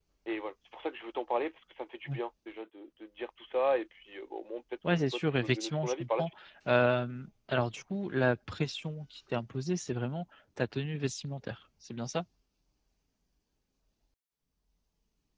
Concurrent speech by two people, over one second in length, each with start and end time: 4.9-6.3

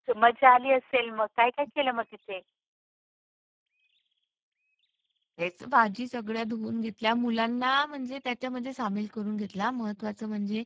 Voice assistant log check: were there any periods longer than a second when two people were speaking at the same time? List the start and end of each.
none

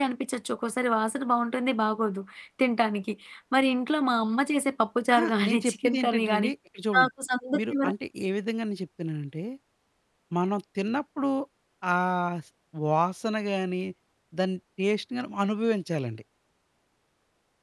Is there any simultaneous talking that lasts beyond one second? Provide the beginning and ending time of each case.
5.1-6.5

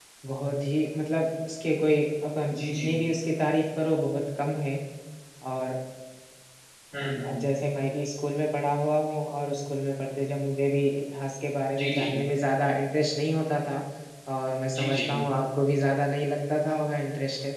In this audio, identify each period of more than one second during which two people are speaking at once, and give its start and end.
none

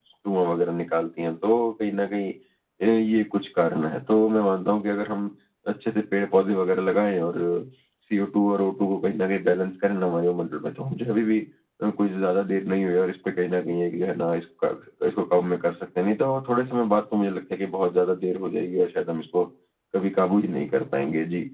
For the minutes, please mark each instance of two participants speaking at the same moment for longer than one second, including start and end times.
none

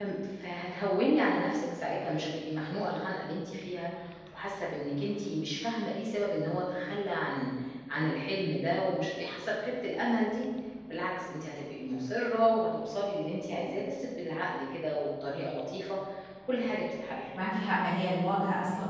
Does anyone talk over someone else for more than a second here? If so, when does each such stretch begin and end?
none

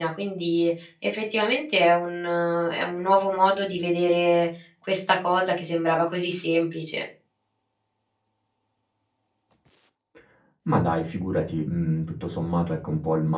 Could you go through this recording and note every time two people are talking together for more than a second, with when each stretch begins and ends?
none

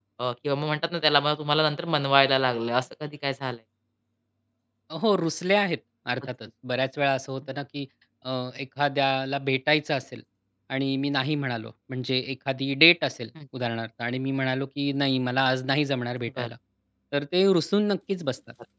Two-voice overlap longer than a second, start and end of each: none

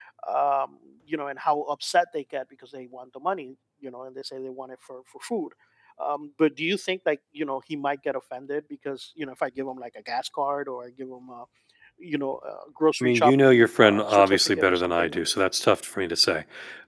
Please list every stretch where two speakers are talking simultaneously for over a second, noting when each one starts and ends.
13.0-15.3

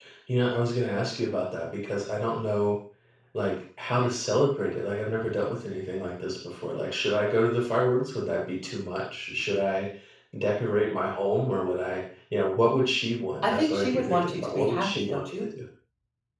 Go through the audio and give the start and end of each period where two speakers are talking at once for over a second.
13.4-15.4

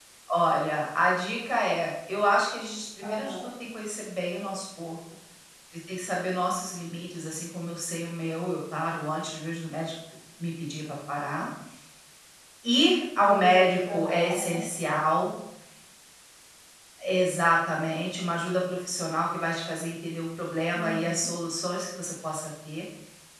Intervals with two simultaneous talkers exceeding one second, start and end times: 13.2-14.6

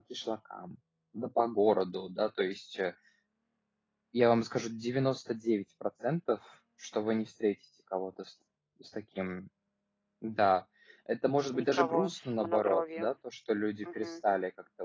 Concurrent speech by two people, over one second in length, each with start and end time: 11.5-13.1

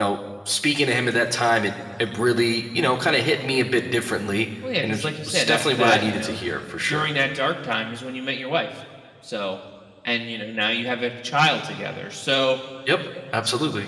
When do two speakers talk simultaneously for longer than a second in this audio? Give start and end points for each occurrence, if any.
4.8-6.4

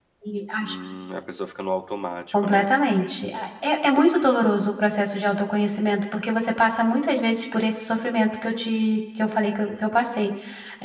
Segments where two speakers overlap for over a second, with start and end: none

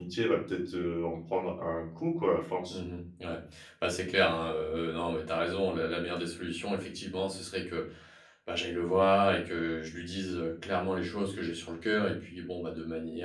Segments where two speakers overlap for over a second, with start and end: none

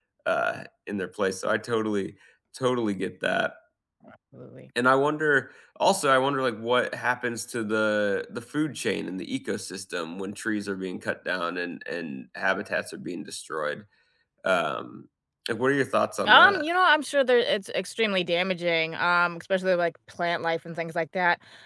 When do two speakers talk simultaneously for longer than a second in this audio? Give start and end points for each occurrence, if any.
none

